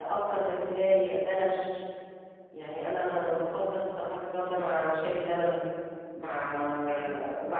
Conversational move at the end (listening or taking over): listening